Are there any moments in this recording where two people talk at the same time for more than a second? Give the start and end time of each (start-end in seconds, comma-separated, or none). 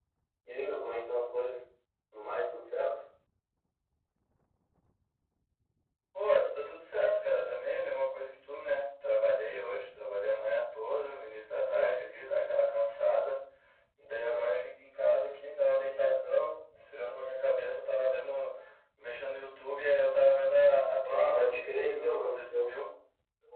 21.1-22.7